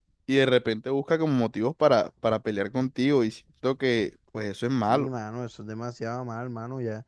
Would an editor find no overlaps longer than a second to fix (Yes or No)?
Yes